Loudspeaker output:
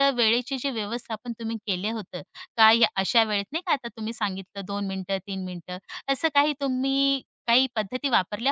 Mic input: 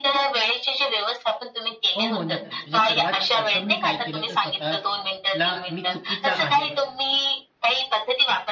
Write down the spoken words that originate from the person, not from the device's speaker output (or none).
हो, हो. नक्कीच. म्हणजे सर्वात प्रथम मी काय केलं तर स्वतःला मी चुकीचा आहे,